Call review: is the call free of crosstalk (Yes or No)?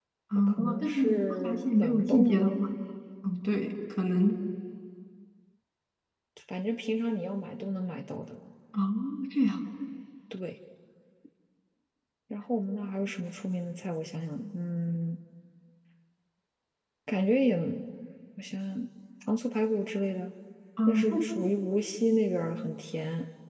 No